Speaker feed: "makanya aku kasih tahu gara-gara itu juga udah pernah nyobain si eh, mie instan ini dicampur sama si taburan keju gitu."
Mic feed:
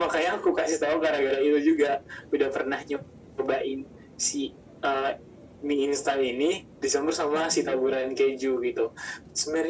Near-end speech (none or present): present